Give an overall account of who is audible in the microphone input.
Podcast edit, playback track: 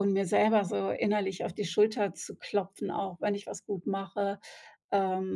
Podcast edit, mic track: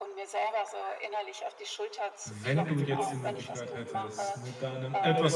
both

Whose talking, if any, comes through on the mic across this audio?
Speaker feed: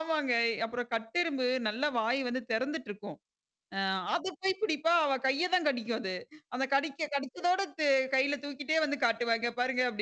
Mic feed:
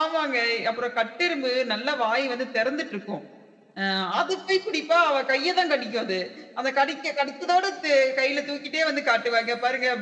echo only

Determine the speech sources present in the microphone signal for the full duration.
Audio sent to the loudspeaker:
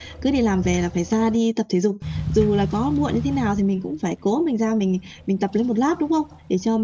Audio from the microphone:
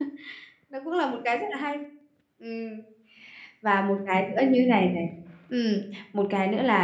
user only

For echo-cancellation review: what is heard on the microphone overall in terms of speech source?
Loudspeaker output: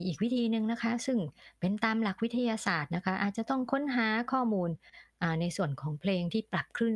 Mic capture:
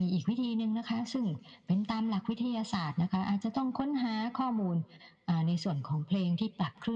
echo only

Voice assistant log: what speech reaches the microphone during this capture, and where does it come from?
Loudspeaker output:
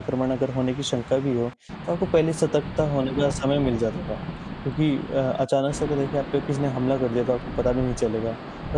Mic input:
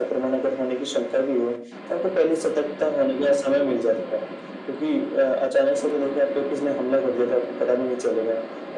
echo only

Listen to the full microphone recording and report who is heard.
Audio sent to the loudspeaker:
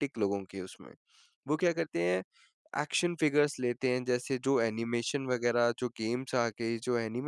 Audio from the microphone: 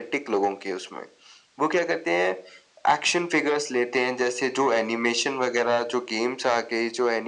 echo only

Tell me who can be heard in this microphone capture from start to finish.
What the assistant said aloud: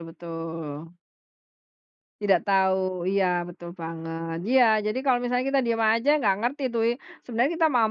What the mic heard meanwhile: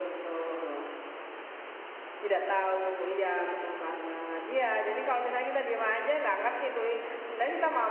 echo only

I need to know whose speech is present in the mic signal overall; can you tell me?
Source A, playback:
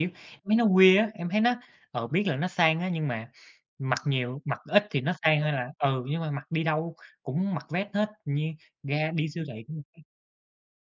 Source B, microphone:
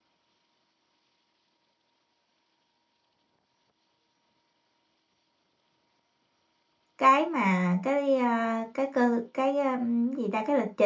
user only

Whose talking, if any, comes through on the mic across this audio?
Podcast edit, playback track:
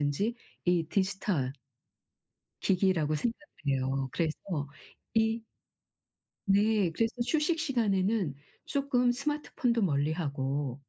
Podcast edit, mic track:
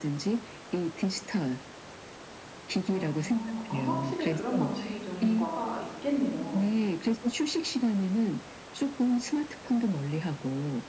both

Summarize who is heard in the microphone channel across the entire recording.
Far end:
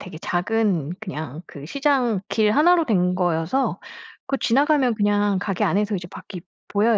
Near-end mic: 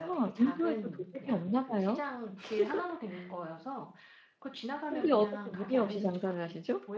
both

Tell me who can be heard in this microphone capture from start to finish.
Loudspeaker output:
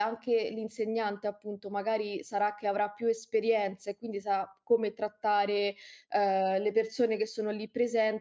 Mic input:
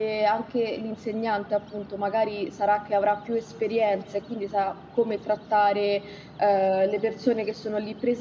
echo only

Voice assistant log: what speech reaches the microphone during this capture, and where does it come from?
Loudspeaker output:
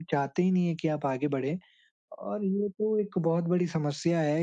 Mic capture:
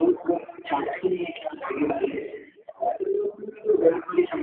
echo only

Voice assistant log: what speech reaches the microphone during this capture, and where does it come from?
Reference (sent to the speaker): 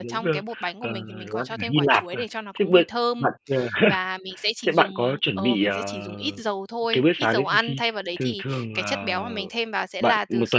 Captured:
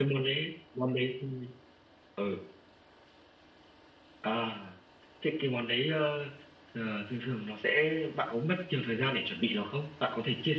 user only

